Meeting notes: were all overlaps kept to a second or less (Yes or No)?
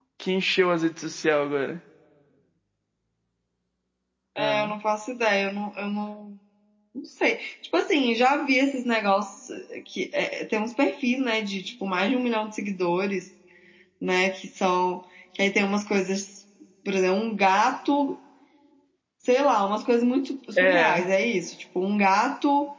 Yes